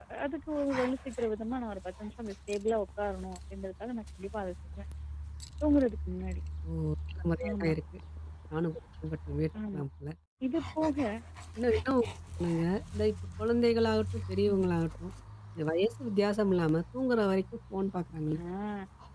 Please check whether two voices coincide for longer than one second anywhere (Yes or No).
No